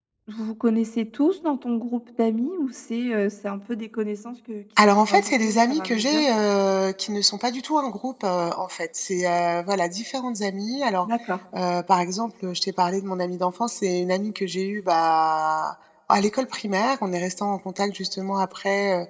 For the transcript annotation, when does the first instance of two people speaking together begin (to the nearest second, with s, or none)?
5 s